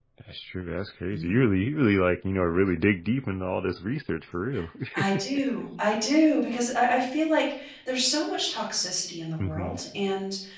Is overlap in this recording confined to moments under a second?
Yes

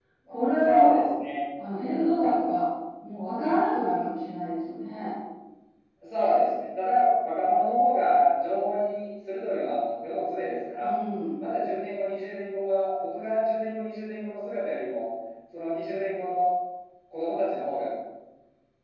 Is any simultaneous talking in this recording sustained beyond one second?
No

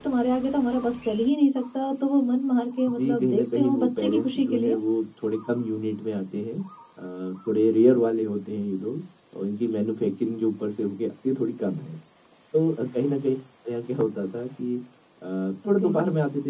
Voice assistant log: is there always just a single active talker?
No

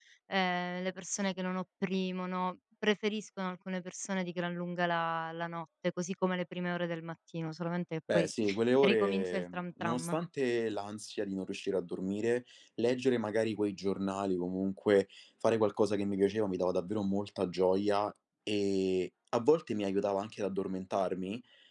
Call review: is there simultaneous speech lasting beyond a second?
Yes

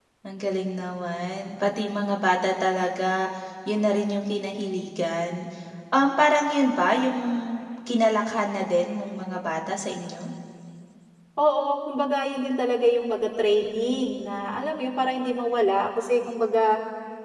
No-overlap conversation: Yes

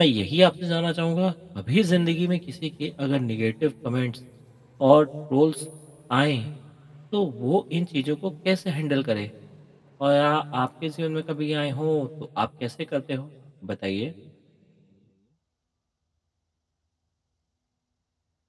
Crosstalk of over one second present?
No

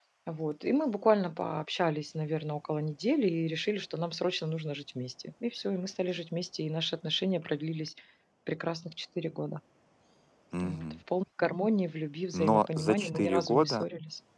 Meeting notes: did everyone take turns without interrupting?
No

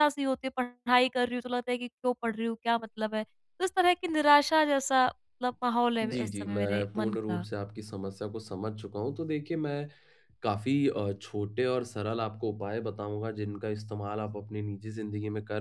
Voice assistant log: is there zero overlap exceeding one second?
No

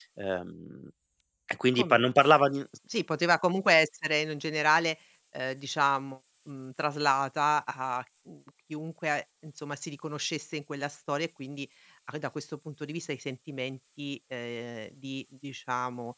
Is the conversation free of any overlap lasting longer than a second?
Yes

